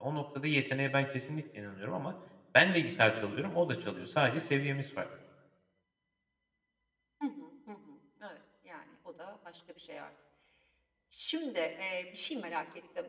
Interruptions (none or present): none